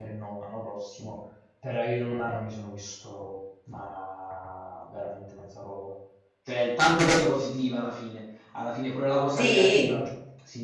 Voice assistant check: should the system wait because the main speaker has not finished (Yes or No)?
Yes